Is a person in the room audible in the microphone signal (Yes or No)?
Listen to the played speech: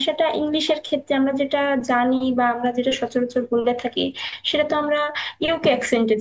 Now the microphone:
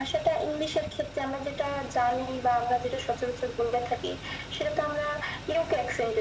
No